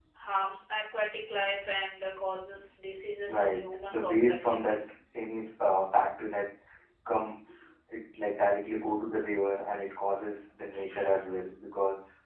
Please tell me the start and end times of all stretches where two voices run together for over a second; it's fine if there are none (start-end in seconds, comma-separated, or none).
3.2-4.8